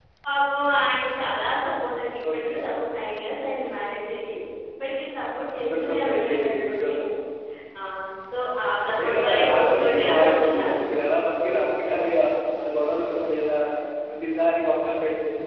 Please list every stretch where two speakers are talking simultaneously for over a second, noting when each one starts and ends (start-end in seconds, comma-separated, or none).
5.7-7.0, 9.0-10.8